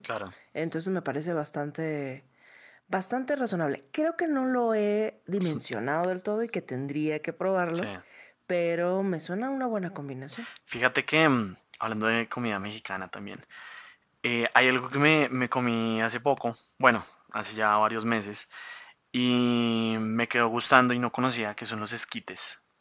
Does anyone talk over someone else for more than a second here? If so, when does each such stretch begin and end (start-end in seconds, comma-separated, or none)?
none